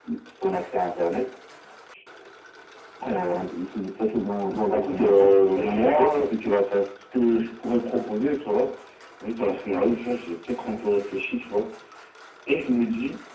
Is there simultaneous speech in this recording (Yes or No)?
Yes